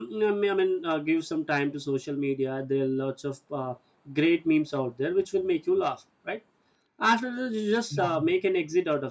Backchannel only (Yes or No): Yes